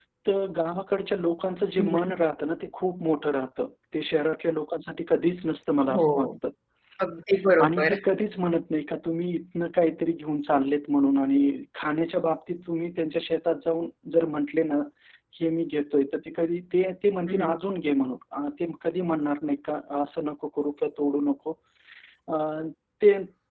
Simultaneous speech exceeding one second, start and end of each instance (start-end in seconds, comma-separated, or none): none